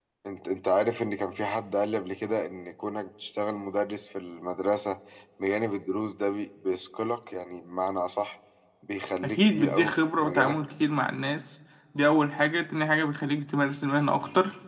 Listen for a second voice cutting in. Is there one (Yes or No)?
Yes